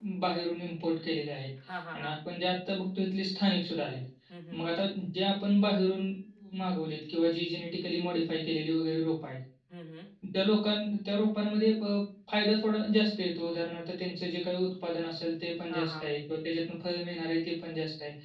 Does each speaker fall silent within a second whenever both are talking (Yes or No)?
Yes